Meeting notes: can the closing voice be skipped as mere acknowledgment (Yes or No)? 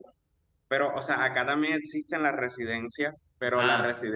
Yes